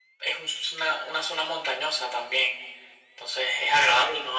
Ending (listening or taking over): listening